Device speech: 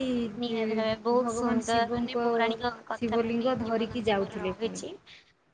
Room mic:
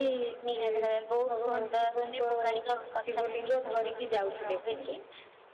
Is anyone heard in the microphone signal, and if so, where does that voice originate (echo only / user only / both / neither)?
echo only